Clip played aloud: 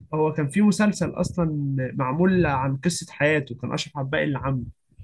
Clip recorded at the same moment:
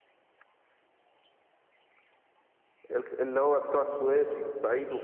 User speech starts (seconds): 3 s

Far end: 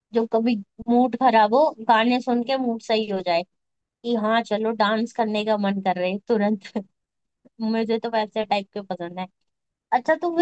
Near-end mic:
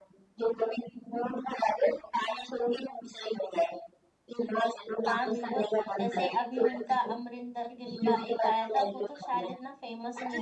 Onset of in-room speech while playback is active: 5 s

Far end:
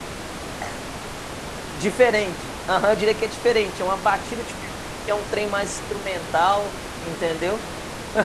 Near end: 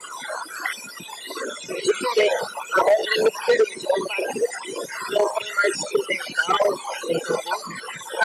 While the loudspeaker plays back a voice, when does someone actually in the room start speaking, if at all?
none

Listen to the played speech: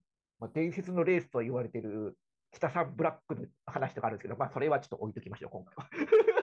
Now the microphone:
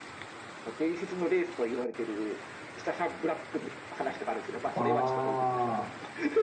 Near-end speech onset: 5 s

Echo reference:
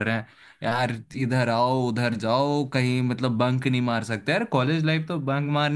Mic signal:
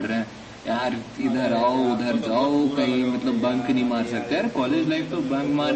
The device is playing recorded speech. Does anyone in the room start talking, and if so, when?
1 s

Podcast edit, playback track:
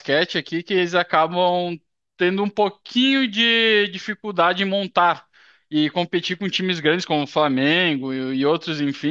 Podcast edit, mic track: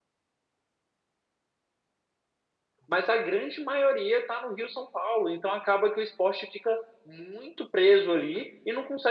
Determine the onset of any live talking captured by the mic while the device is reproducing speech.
3 s

